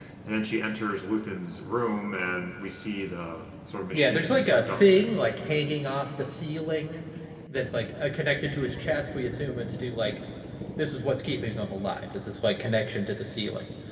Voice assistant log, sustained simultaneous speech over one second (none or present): present